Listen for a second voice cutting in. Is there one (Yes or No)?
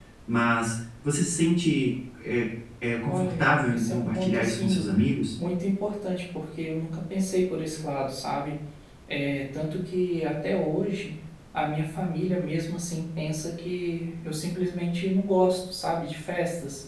Yes